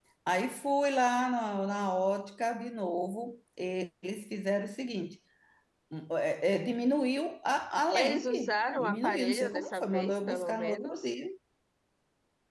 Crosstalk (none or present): present